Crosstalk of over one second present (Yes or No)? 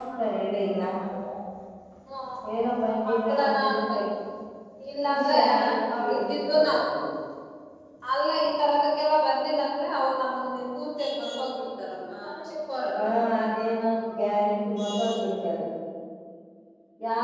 Yes